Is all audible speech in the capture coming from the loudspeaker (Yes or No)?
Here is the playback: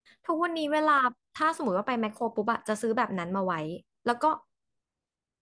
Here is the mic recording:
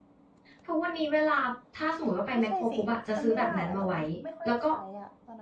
No